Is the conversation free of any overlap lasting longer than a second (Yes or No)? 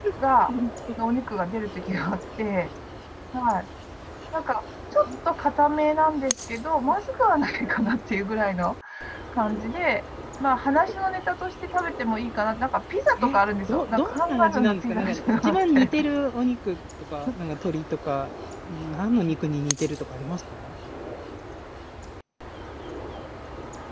No